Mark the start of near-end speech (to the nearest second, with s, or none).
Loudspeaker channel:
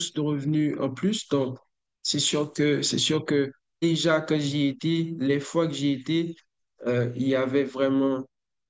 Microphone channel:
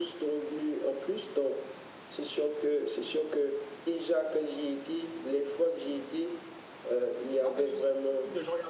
7 s